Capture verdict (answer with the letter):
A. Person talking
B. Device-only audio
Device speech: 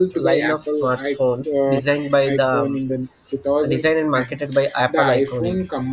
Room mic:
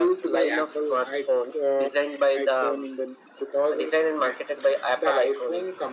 B